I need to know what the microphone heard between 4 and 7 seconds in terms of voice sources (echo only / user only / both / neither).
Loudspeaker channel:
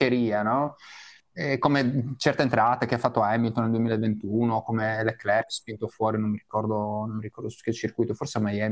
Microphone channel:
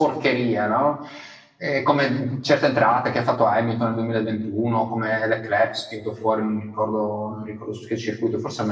echo only